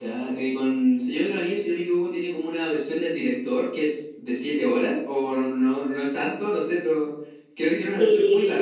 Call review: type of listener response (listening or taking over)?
taking over